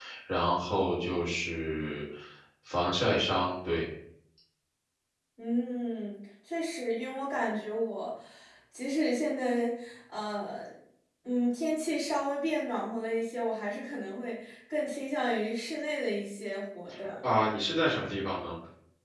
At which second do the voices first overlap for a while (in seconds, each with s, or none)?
none